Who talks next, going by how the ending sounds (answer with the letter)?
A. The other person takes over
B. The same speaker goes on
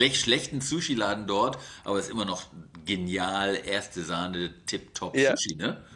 A